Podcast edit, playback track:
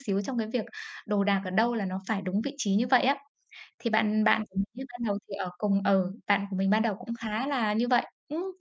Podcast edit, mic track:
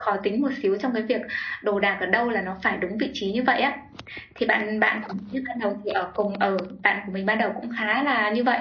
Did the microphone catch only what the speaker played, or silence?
Yes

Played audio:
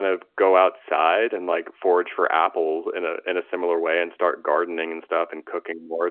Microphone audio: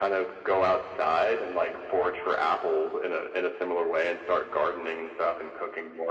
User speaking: No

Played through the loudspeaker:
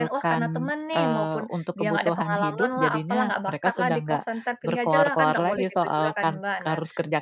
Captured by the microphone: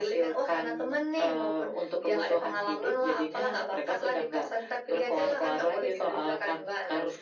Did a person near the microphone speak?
No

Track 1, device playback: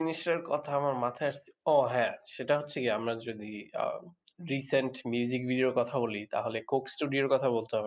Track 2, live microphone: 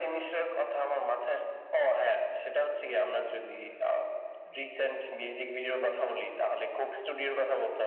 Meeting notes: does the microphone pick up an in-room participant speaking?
No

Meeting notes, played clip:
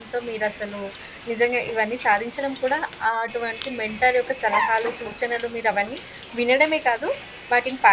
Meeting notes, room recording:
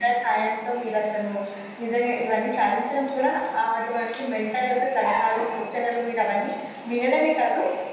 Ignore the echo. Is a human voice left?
No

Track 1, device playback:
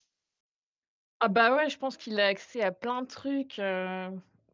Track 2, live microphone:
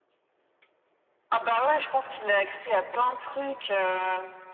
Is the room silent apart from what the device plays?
Yes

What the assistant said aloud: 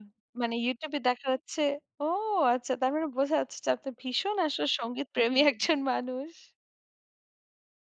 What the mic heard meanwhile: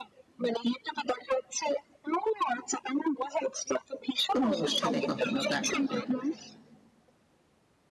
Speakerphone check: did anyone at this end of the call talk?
Yes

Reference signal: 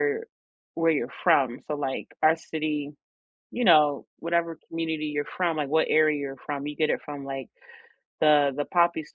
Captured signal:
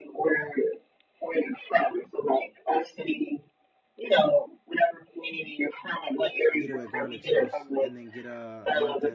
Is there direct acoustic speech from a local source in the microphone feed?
Yes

